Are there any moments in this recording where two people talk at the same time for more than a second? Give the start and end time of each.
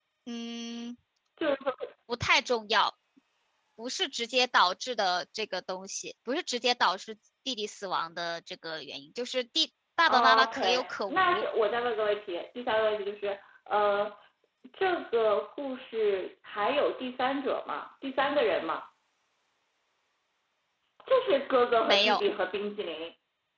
10.1-11.4

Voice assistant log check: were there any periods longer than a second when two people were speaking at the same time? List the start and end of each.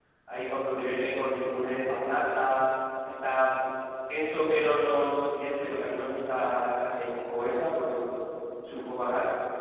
none

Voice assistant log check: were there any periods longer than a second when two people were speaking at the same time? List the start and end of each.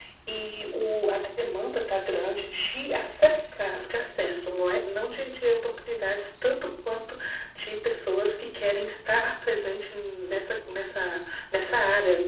none

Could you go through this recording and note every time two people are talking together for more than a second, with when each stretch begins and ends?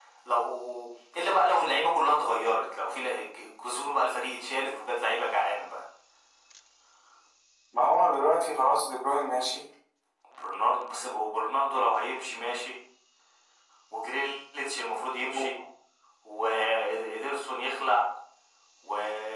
none

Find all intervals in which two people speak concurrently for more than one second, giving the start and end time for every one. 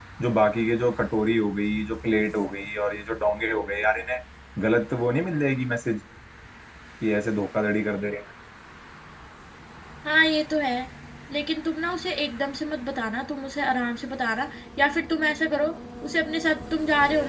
none

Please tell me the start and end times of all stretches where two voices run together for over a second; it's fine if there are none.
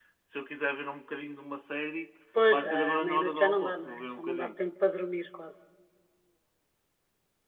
2.5-4.5

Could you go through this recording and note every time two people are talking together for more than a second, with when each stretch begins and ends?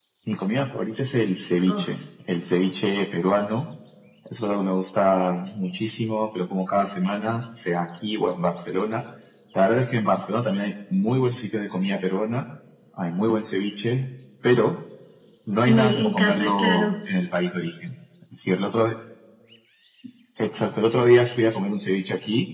15.7-16.9

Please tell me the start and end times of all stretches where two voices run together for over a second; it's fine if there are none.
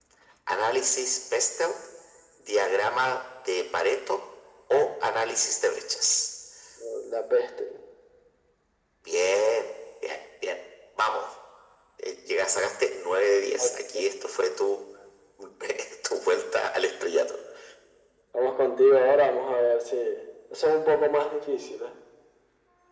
none

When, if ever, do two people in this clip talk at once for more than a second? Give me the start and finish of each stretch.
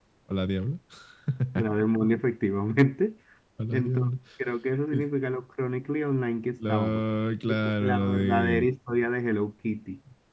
7.5-8.7

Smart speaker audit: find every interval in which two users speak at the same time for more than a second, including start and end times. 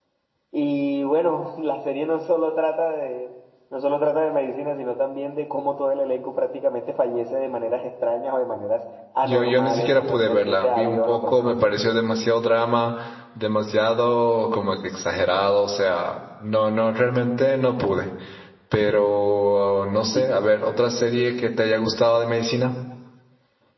9.2-11.7

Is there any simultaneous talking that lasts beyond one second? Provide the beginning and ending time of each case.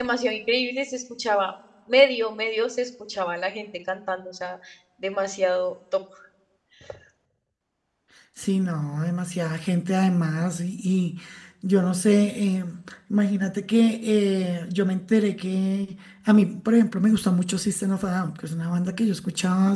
none

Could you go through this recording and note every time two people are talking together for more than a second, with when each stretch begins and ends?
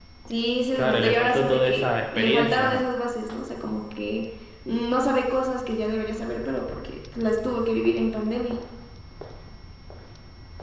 0.8-2.8

